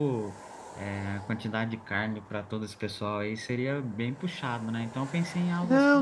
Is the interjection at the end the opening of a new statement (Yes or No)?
Yes